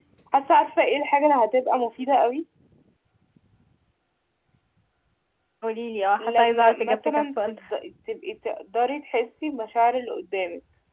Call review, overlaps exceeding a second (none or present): present